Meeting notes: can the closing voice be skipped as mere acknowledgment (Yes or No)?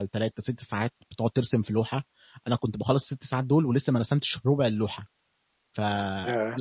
Yes